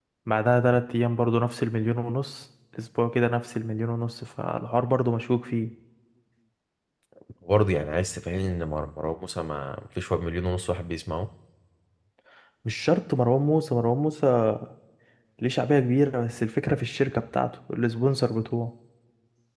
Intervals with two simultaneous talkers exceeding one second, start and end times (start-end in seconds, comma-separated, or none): none